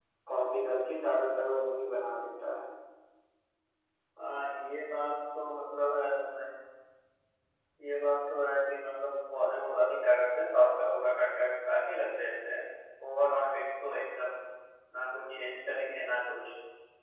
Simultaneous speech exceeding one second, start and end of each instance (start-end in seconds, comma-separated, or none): none